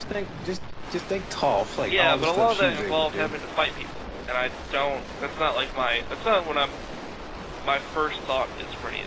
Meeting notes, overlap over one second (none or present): present